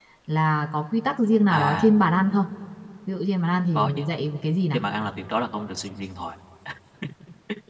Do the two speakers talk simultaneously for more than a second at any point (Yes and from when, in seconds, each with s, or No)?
No